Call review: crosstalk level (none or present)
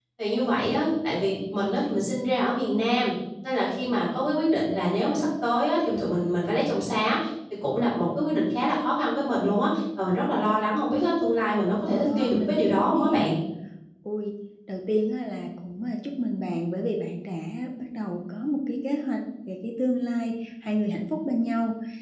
present